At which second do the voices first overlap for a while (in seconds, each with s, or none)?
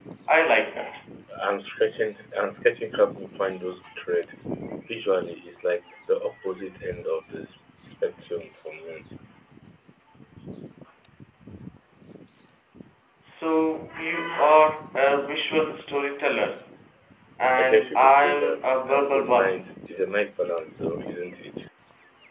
17.6 s